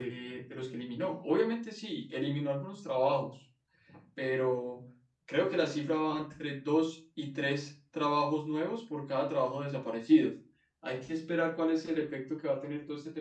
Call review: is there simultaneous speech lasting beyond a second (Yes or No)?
No